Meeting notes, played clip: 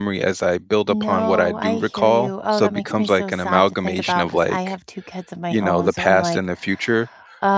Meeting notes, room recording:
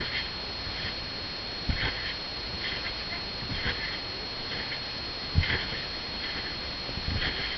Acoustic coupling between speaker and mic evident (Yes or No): No